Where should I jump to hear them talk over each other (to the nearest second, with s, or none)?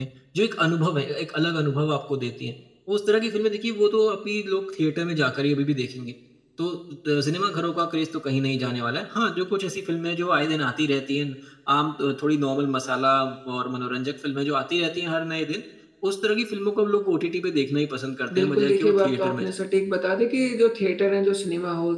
18 s